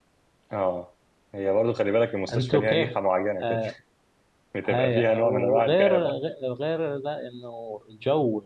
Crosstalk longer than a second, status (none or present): present